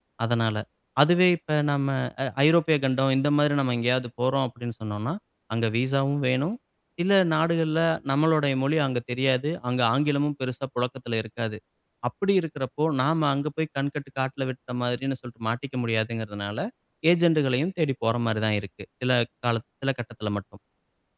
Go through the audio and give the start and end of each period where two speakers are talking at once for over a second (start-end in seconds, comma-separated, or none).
none